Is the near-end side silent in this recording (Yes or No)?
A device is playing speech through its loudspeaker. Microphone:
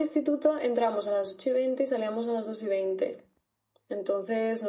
Yes